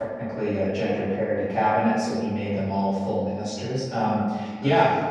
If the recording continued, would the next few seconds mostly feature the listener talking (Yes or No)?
No